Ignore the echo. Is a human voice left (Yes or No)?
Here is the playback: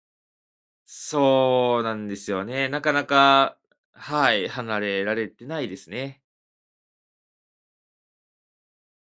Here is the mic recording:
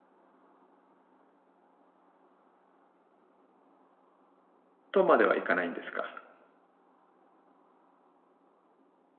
Yes